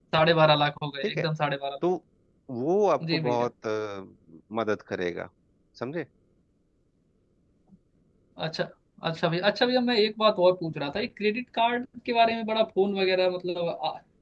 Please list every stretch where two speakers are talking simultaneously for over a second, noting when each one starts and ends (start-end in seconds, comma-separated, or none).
none